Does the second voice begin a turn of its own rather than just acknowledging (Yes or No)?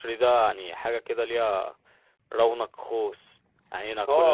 Yes